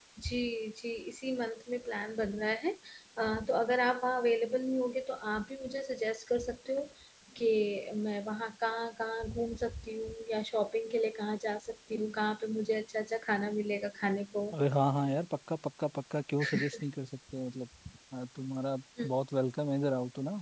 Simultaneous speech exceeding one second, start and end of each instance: none

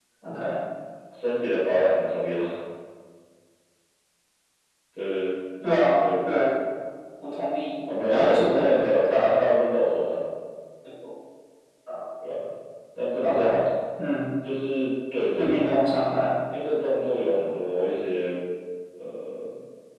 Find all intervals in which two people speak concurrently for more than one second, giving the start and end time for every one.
7.9-9.5

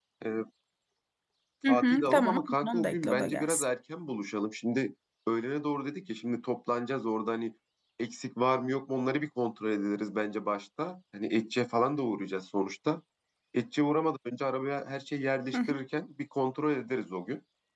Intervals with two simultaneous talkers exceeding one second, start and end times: 1.7-3.6

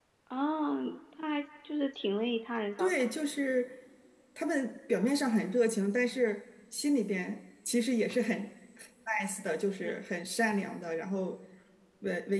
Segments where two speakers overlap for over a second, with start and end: none

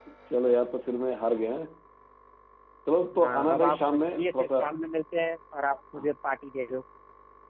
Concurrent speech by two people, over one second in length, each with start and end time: 3.2-4.6

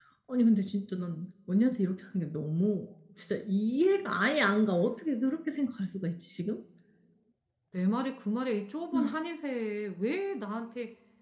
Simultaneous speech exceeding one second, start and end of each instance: none

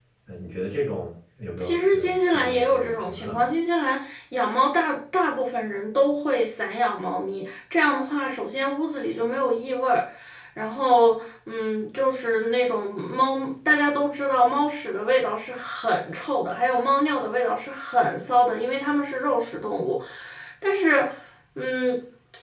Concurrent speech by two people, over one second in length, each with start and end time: 1.6-3.5

